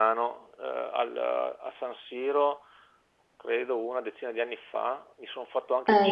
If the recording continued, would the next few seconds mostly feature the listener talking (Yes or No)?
No